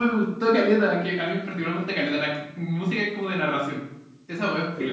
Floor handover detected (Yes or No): Yes